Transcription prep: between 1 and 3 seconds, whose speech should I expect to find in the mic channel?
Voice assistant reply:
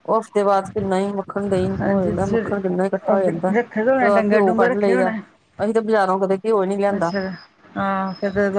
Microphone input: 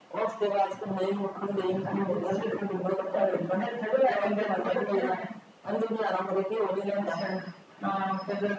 echo only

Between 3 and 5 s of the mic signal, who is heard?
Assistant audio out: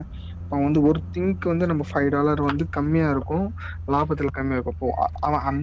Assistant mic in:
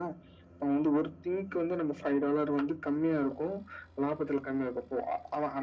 echo only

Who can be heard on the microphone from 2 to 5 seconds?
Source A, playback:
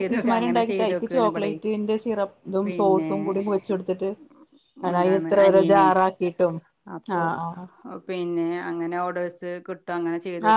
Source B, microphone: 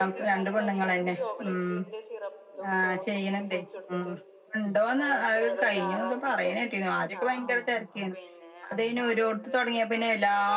both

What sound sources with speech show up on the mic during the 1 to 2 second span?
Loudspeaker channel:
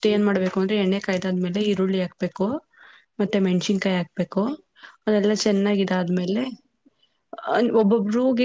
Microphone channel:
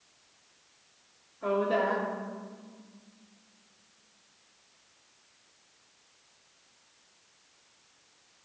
user only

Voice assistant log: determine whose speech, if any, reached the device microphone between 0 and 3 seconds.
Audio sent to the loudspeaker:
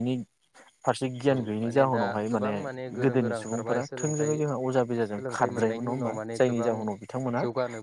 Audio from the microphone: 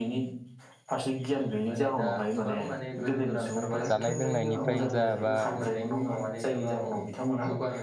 echo only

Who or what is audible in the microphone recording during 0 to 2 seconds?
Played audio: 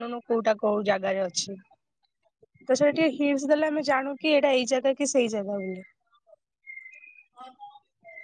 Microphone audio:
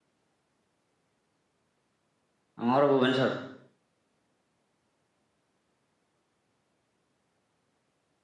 neither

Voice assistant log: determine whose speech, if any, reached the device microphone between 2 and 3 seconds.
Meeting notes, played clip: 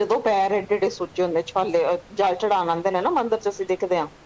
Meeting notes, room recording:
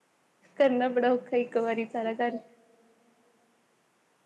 user only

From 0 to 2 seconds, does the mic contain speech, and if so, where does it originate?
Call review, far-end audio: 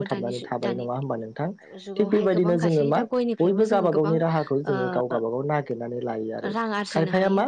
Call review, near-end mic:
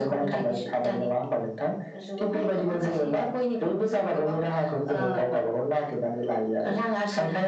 echo only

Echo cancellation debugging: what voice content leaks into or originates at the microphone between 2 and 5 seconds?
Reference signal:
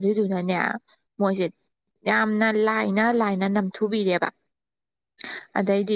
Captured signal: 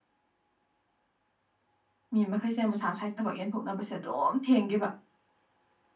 user only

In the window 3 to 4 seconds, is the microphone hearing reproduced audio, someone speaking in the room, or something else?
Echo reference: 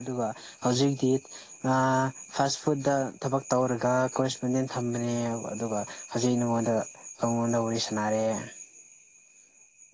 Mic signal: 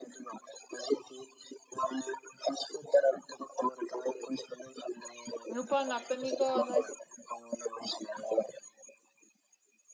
echo only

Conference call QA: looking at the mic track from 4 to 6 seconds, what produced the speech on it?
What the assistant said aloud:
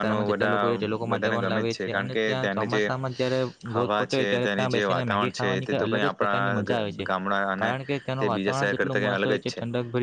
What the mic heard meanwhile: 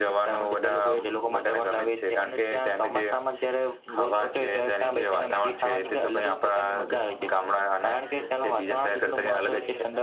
both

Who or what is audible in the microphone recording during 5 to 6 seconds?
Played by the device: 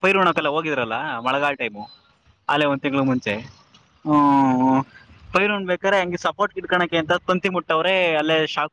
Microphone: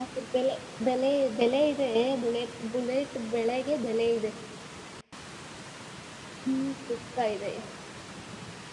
neither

